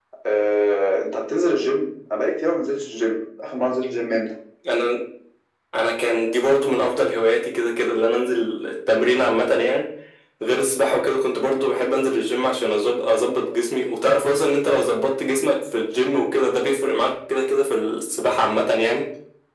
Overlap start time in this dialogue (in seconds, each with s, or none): none